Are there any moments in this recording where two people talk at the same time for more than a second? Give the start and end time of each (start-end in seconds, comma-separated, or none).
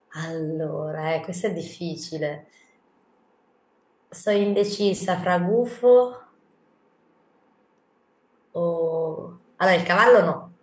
none